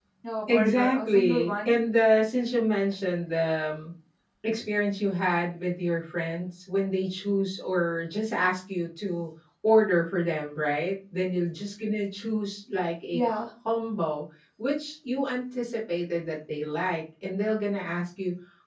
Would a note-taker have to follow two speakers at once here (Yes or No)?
Yes